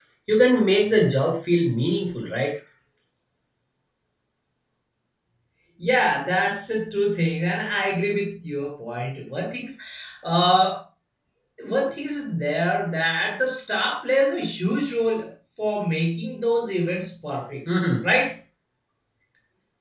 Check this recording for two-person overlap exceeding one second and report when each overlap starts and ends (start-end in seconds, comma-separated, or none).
none